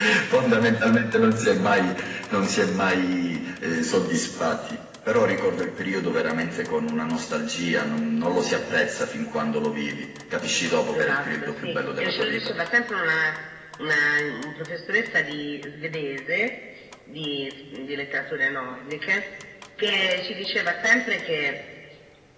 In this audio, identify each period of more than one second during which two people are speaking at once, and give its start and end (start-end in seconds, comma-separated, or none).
10.9-12.5